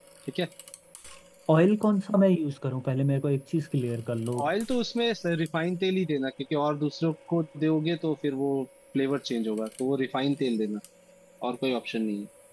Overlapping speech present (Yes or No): No